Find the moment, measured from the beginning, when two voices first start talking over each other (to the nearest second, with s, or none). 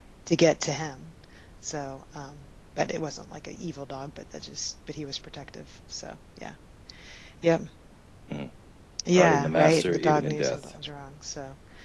9 s